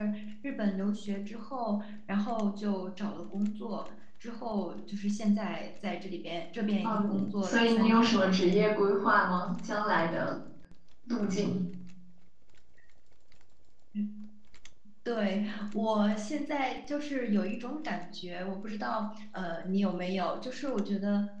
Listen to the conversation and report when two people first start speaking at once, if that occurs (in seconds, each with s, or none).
6.8 s